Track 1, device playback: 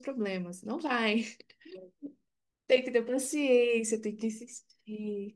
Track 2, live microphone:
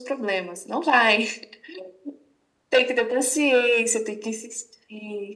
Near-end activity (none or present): none